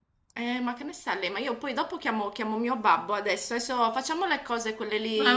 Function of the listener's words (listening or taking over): taking over